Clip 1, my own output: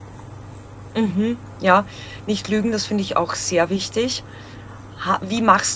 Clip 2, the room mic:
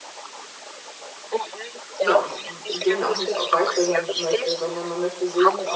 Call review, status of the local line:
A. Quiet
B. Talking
B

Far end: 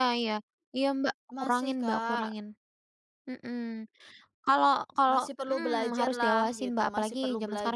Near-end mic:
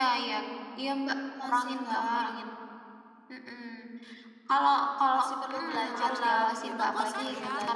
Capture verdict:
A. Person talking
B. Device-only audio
A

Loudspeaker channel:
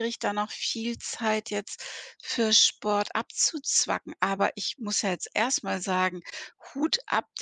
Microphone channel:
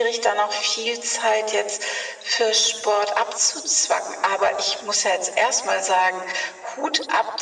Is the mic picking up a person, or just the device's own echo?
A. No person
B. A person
A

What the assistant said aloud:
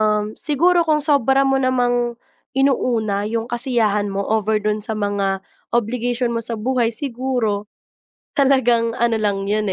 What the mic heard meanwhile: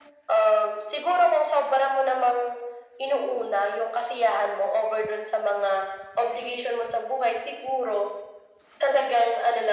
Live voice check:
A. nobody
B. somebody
A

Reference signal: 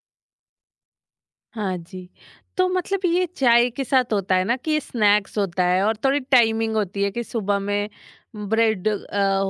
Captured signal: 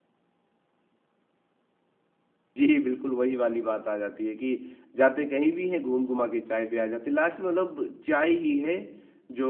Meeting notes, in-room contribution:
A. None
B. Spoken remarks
B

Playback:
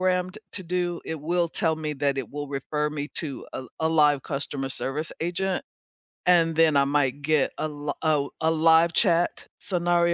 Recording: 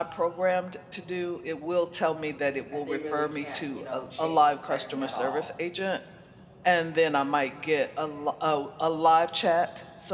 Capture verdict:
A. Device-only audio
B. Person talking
B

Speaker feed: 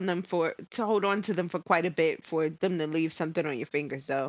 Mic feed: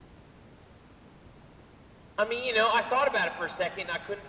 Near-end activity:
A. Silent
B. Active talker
B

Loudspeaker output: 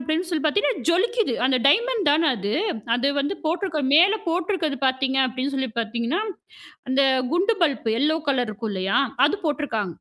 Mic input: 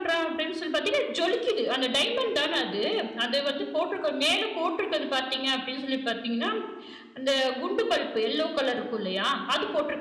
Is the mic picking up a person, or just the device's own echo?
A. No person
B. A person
A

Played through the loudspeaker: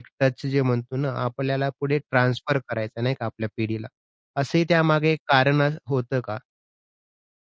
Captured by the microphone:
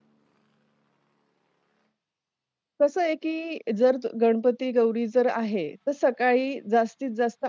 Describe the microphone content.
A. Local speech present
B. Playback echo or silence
A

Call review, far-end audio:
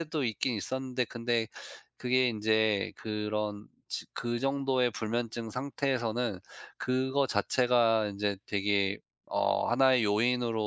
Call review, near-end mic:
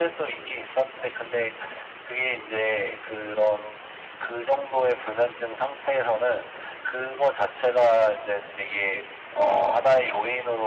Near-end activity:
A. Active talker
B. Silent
B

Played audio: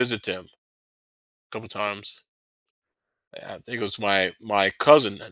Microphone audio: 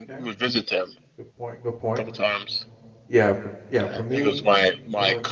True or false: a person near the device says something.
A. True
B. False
A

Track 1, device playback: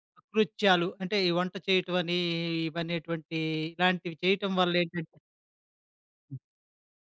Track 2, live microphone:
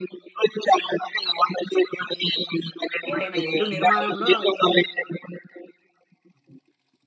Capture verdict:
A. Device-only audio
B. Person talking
B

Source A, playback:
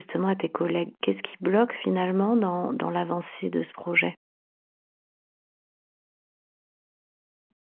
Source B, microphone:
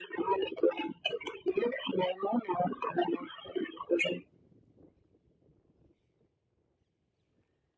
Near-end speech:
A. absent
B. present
A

